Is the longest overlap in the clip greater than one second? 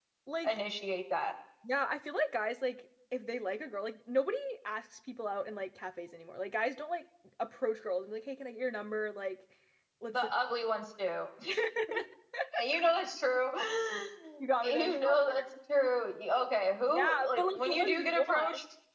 Yes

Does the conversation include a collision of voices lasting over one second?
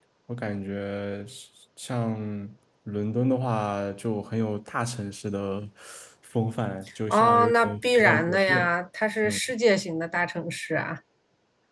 Yes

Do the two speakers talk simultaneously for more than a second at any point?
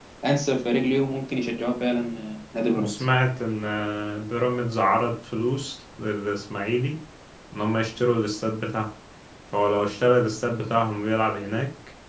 No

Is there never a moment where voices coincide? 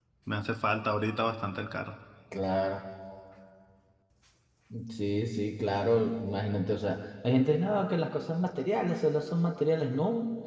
Yes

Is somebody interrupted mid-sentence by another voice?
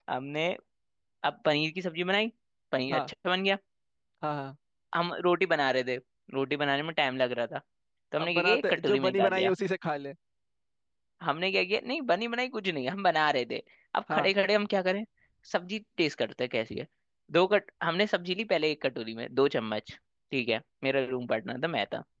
Yes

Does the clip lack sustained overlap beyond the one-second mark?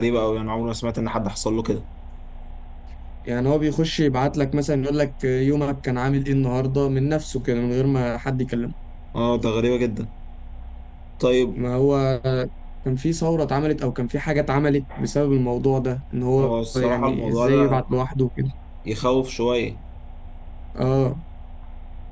No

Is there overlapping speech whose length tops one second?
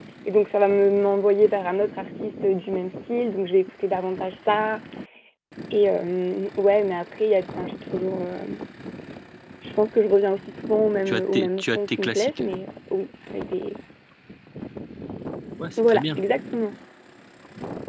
Yes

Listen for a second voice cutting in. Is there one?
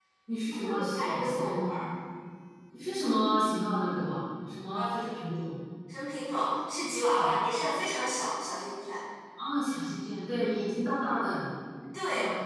Yes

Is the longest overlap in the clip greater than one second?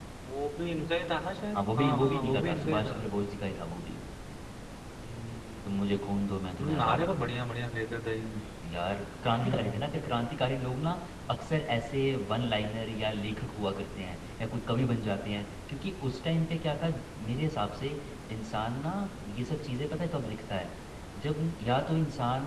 Yes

